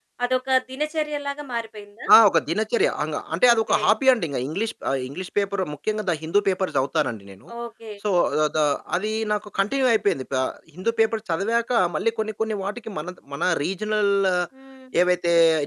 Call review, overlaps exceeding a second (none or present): none